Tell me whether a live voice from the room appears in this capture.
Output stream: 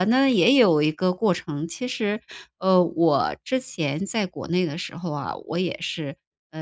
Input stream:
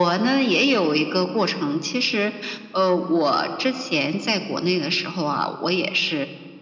No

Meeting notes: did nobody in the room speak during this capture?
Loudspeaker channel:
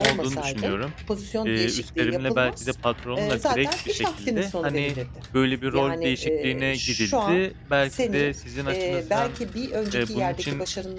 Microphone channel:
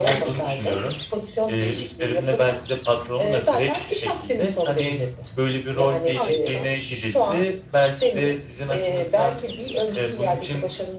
No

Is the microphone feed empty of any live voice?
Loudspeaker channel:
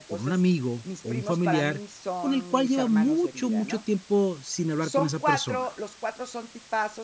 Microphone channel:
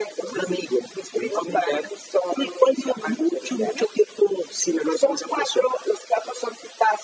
Yes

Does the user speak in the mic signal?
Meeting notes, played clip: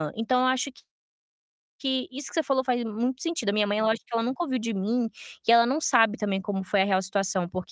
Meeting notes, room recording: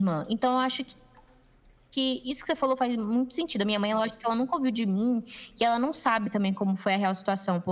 No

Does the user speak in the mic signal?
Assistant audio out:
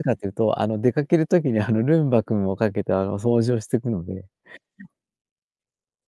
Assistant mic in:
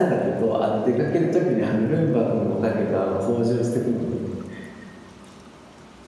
No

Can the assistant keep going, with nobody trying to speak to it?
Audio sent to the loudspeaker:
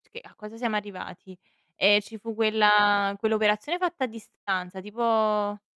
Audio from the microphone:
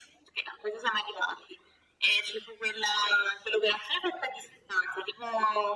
Yes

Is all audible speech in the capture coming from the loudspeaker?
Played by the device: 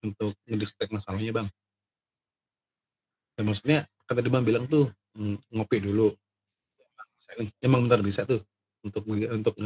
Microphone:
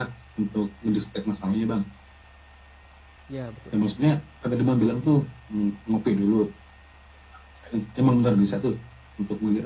No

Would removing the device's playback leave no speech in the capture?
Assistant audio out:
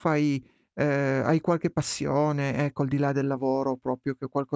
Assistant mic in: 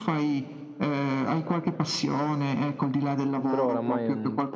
No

